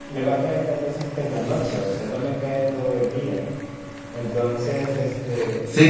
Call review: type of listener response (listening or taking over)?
taking over